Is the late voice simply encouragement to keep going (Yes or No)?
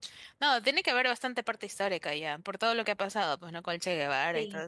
No